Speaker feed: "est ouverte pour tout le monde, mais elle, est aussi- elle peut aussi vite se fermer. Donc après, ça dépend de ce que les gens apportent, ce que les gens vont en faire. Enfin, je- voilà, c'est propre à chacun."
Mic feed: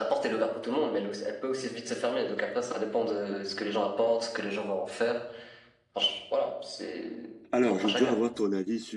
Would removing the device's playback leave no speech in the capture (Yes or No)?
No